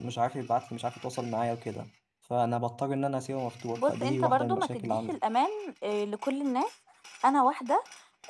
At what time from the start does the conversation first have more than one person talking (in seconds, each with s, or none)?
3.8 s